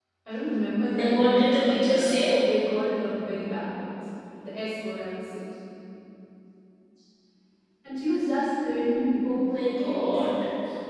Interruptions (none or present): present